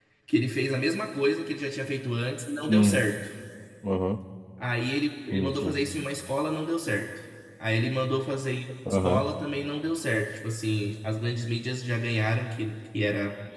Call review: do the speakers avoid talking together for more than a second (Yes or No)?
Yes